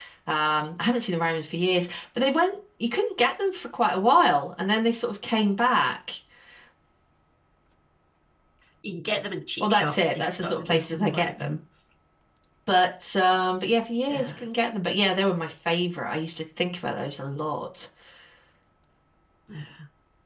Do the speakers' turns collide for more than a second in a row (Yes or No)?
Yes